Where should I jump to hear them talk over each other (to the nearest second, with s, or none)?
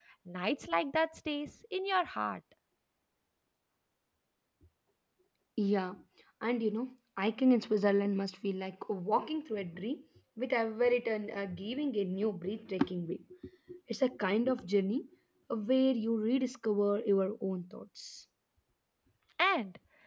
none